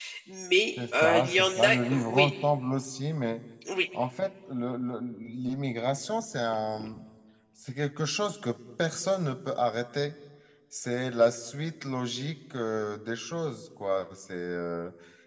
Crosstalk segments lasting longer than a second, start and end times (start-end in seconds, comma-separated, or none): 1.0-2.3